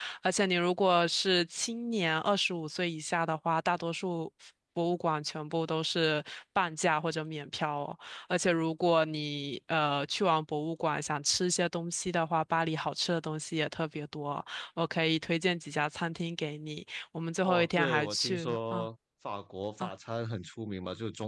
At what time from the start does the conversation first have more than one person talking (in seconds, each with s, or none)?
17.4 s